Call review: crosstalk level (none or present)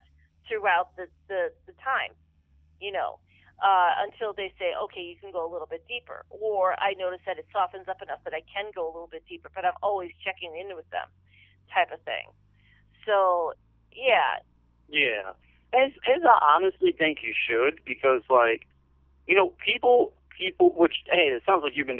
none